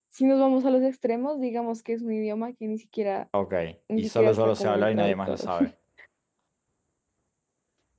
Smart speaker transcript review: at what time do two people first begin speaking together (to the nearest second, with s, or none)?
4 s